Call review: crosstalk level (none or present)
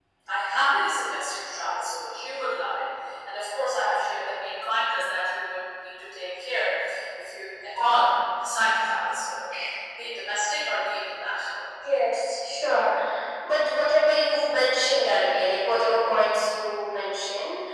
none